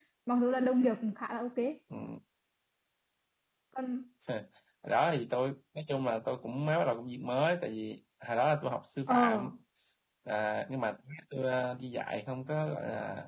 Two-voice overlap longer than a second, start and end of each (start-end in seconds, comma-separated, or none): none